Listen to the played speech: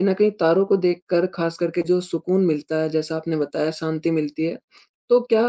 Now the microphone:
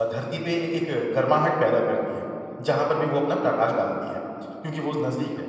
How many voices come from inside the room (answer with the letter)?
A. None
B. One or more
B